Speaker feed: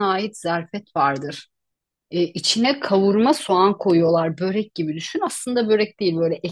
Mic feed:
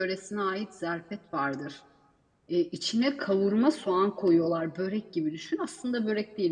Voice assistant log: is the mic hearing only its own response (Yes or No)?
Yes